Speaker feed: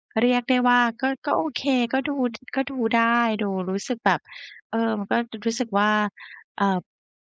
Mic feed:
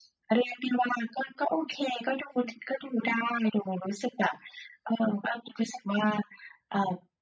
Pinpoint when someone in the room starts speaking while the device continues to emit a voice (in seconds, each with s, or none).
none